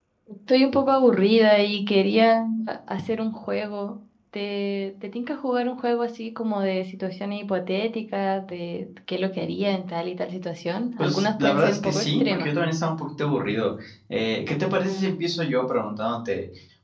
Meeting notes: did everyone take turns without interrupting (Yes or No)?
No